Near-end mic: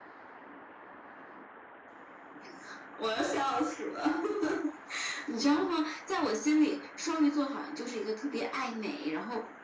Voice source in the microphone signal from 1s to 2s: neither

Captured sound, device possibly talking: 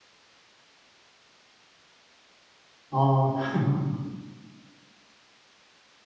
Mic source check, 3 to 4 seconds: user only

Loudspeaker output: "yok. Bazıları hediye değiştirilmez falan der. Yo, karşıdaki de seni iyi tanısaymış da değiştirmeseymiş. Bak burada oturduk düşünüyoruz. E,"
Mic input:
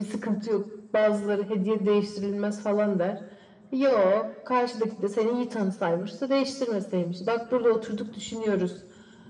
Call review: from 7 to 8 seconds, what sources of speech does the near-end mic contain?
echo only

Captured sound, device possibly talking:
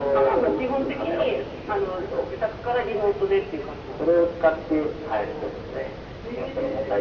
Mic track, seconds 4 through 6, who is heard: echo only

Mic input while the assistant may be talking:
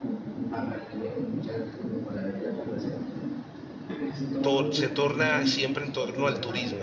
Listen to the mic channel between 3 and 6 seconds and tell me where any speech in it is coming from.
both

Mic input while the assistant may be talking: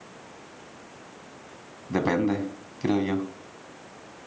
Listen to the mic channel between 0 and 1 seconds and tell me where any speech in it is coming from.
neither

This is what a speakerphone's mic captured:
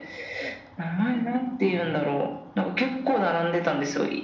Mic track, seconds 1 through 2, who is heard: echo only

